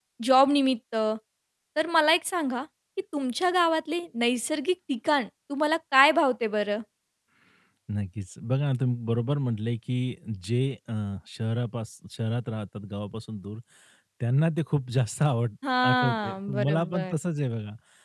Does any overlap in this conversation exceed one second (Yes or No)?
Yes